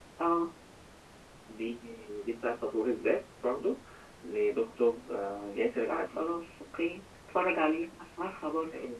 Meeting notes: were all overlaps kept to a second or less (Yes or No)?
Yes